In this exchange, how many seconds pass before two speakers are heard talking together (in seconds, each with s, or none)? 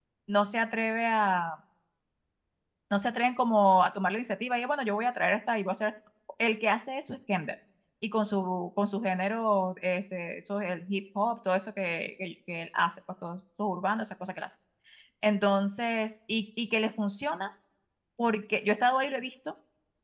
none